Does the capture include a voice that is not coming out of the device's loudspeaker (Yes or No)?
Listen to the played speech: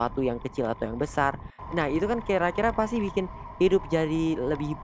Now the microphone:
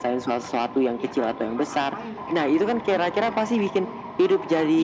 Yes